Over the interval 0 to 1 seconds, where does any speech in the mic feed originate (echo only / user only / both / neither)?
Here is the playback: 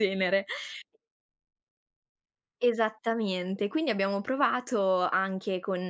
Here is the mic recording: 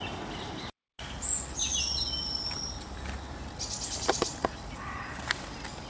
neither